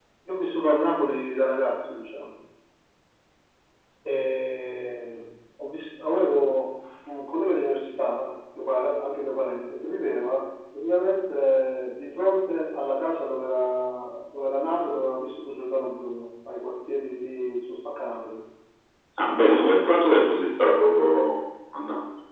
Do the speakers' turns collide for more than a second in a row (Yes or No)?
No